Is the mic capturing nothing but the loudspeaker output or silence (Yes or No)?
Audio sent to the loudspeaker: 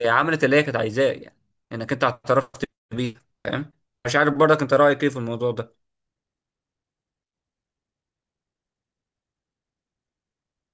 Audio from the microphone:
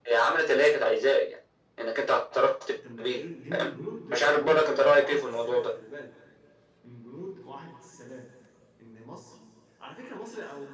No